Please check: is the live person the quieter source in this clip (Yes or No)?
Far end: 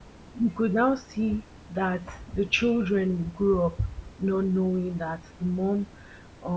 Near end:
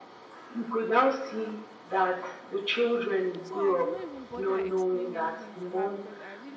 Yes